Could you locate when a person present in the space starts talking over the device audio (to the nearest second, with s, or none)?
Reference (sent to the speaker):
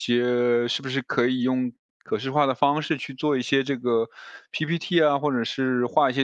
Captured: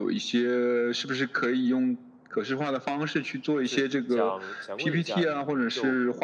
4 s